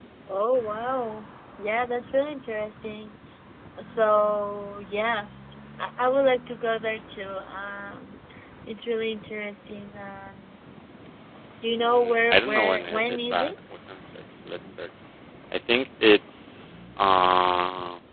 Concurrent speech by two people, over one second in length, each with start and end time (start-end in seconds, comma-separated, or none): 11.8-13.5